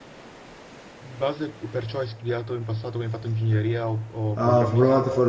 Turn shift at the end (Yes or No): Yes